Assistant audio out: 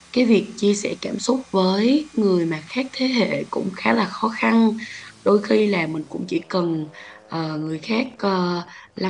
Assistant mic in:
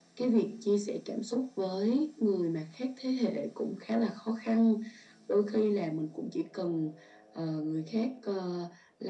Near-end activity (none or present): none